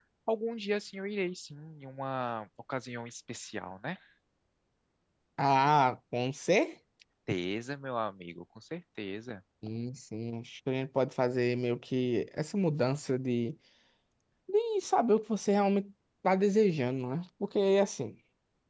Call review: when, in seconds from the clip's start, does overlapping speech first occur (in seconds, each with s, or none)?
none